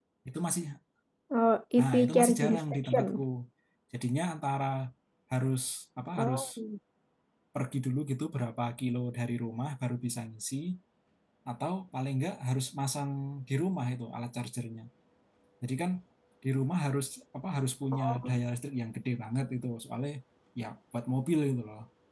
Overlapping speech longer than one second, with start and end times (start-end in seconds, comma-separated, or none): 1.8-3.1